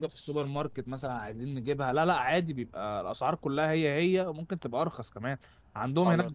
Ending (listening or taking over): listening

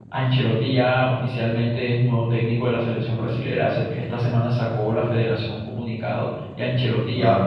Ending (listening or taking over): listening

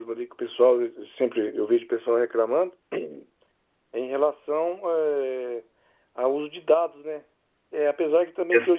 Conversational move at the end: listening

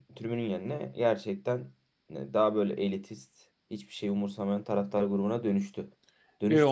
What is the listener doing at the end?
taking over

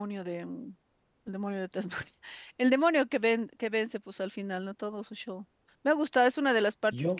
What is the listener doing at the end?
listening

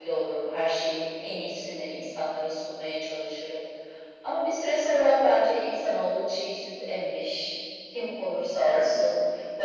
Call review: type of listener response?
listening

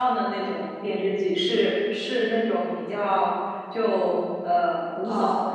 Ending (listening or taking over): listening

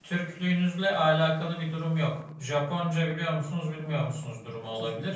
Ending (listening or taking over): listening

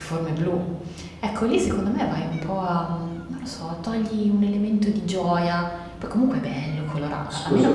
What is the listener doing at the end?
taking over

